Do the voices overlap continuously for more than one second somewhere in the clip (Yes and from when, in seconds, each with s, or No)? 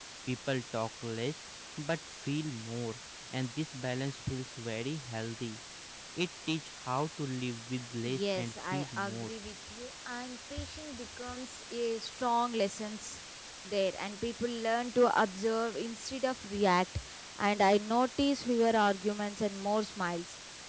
Yes, from 8.0 s